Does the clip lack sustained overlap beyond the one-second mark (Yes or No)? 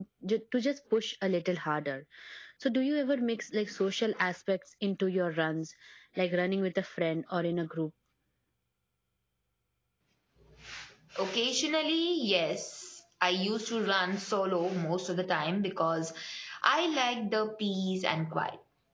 Yes